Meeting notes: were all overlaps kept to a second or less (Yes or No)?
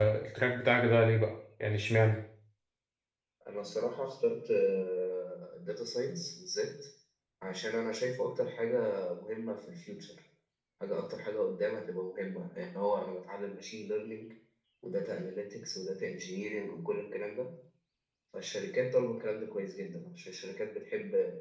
Yes